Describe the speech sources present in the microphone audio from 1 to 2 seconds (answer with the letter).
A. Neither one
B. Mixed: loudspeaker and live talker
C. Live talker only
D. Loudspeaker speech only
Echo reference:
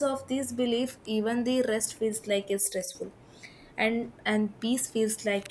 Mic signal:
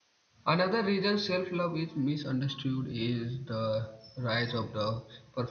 C